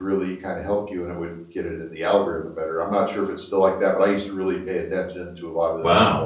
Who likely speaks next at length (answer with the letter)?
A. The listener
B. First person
A